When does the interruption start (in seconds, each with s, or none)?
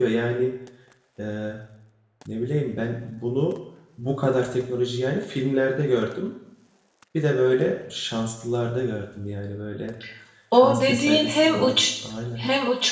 10.5 s